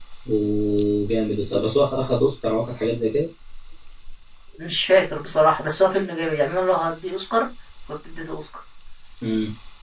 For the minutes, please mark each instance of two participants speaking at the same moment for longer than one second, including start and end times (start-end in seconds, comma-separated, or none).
none